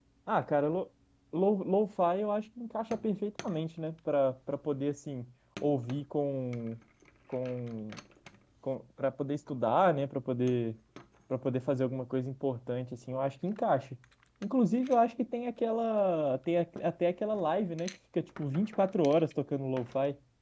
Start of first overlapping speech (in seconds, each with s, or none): none